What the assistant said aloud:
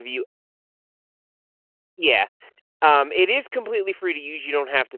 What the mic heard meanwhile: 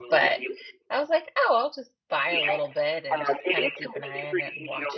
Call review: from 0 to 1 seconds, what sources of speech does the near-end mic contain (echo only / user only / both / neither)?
both